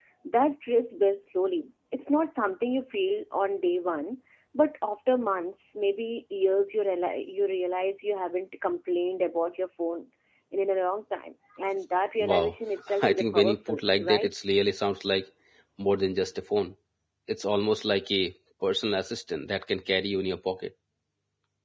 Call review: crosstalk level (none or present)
present